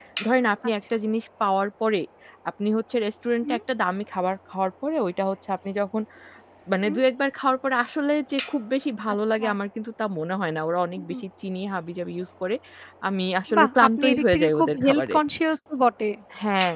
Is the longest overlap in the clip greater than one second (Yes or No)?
Yes